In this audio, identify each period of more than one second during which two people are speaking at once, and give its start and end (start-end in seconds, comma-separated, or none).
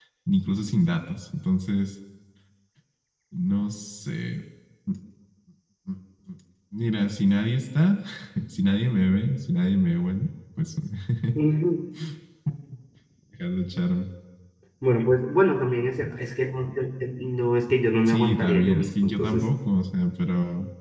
18.1-19.4